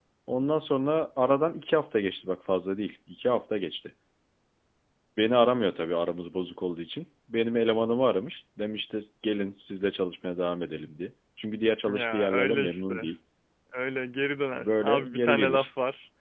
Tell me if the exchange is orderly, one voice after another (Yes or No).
No